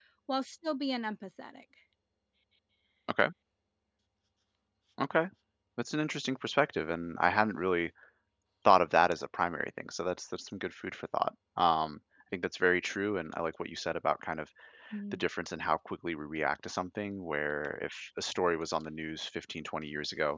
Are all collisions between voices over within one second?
Yes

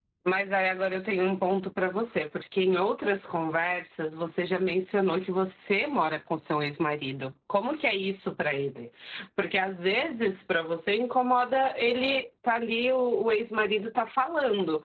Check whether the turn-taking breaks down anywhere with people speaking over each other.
No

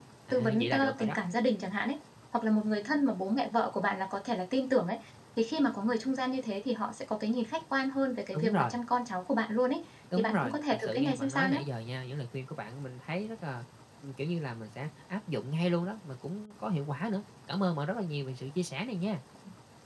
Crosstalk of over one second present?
Yes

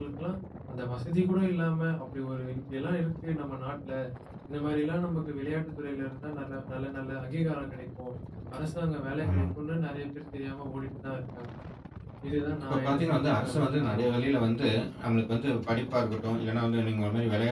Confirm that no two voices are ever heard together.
No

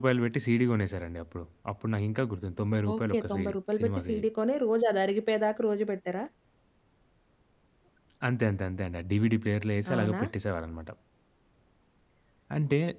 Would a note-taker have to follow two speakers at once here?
Yes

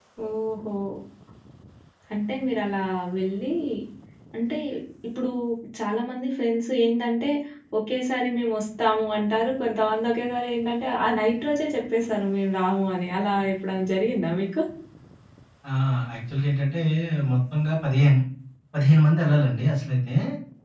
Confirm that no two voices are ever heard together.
Yes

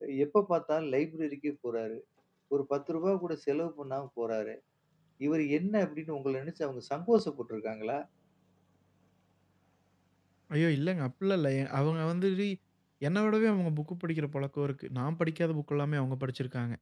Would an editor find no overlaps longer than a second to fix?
Yes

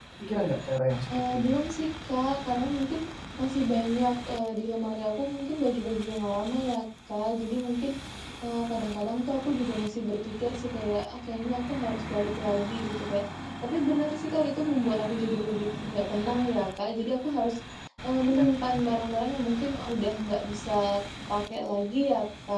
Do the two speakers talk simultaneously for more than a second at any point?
No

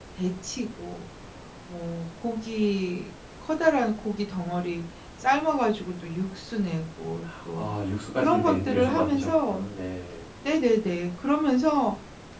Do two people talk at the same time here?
Yes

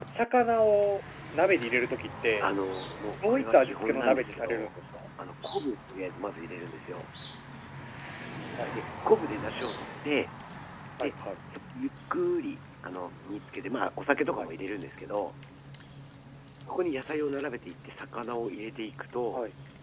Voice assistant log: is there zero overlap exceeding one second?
No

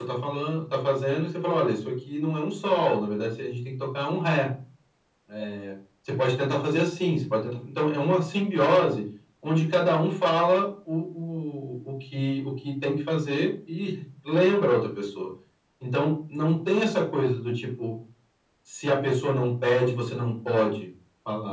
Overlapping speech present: No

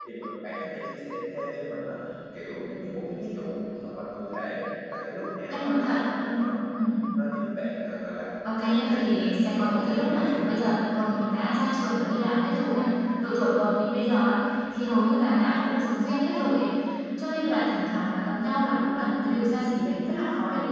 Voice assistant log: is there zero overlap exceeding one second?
No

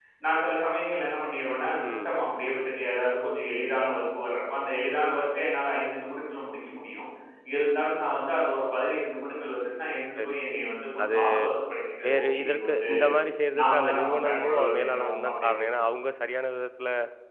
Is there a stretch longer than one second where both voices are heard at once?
Yes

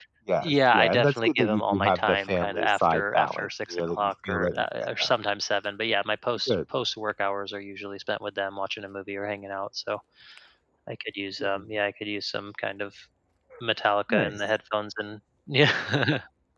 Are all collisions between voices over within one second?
No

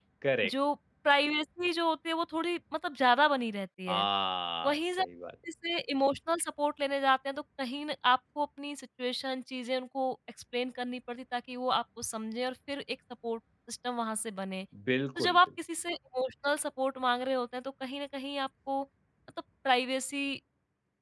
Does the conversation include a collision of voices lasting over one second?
No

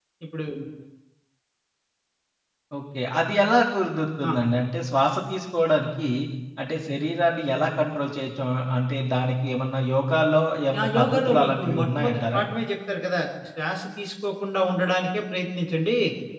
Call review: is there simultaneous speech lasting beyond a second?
Yes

